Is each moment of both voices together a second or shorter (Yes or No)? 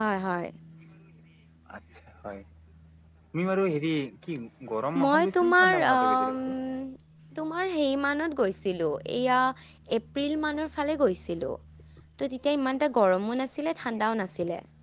No